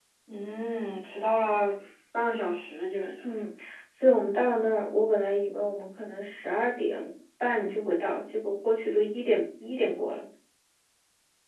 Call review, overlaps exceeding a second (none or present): none